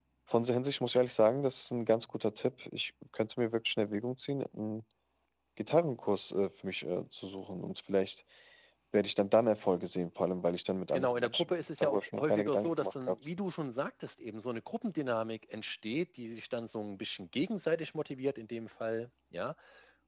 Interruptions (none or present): present